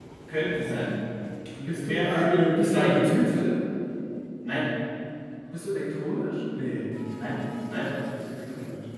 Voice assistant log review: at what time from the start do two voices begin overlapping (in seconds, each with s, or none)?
1.7 s